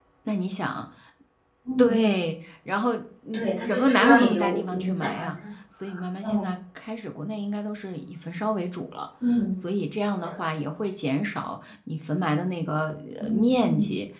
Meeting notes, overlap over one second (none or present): present